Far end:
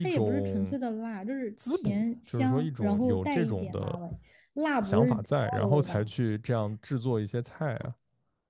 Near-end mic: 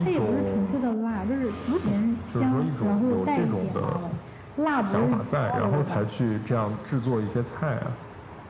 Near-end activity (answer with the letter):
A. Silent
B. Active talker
A